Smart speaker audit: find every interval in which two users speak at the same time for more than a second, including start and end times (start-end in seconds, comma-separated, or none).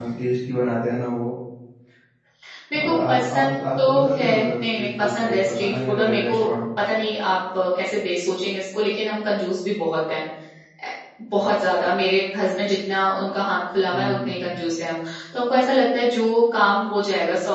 2.8-6.5